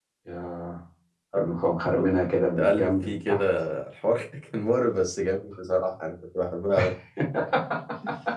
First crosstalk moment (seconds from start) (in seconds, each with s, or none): 2.0 s